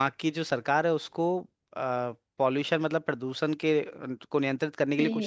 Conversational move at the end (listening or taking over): taking over